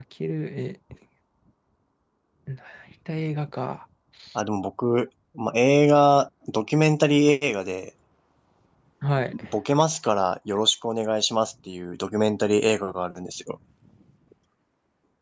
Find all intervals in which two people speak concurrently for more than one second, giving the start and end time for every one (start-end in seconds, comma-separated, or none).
none